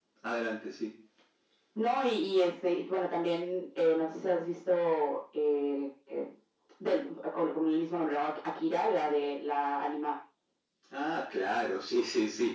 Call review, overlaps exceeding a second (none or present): none